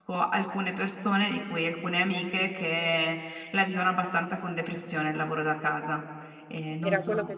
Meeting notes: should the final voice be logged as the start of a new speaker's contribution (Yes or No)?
Yes